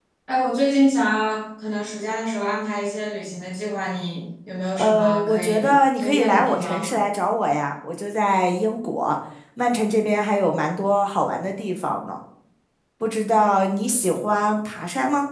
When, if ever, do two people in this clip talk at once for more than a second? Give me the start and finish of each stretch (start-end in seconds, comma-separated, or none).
4.8-6.9